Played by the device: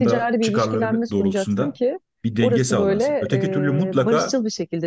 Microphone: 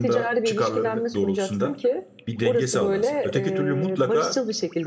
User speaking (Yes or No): No